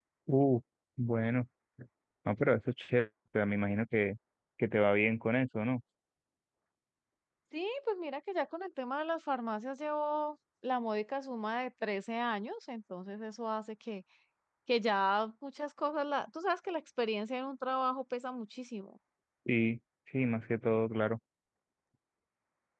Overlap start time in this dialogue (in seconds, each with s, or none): none